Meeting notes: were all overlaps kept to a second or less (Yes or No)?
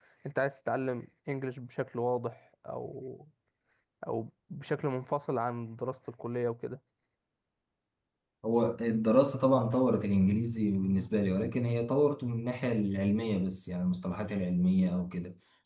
Yes